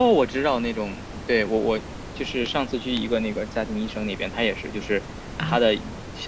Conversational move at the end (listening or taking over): listening